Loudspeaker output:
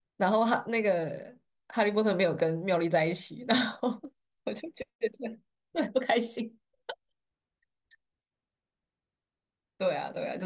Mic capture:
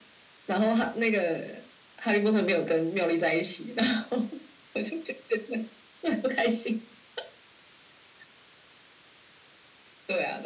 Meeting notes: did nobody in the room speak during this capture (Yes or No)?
Yes